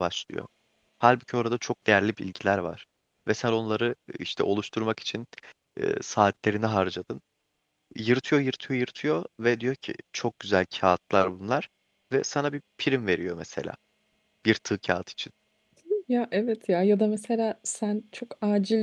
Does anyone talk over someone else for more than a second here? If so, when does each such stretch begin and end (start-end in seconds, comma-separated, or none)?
none